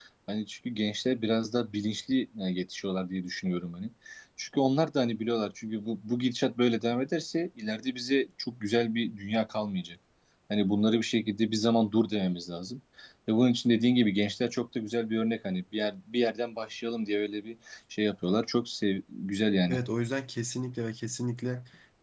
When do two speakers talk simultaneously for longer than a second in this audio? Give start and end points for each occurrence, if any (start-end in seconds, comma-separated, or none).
none